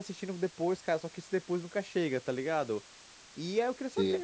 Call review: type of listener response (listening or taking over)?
listening